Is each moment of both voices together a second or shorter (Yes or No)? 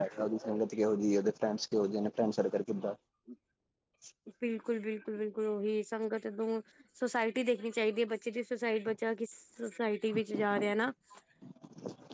Yes